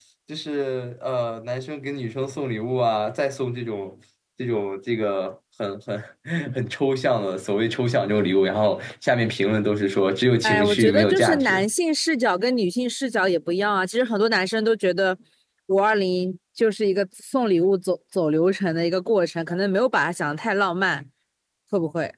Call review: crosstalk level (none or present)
present